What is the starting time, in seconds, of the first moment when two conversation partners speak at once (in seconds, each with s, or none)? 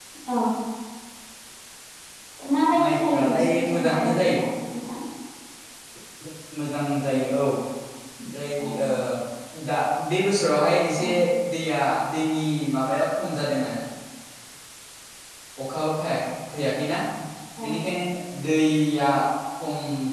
2.8 s